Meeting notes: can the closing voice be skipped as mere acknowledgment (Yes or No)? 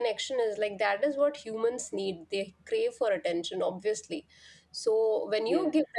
Yes